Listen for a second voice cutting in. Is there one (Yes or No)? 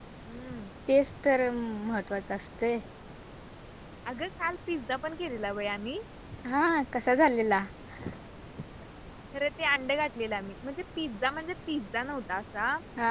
No